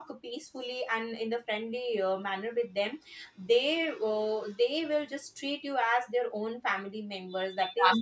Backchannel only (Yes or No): No